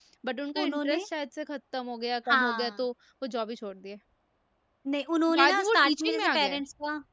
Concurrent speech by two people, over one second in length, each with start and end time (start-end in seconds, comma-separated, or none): 5.3-6.6